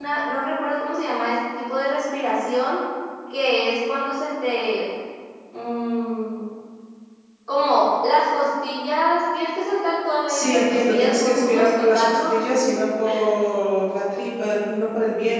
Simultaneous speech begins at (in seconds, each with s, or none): 10.3 s